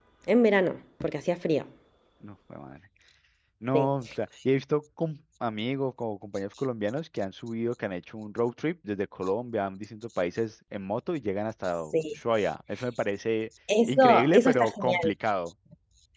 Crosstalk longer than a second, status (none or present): present